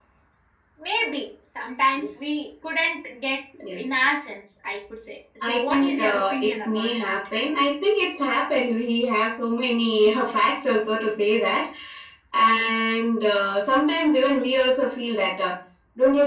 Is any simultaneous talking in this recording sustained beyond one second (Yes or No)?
Yes